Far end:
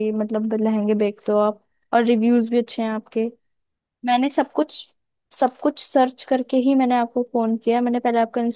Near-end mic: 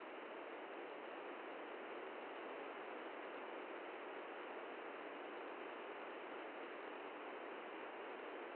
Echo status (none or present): none